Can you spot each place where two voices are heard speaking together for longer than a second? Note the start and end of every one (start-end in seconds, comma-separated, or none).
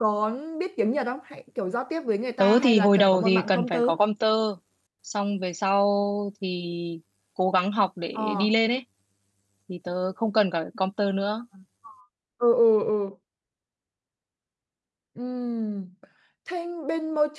2.4-3.9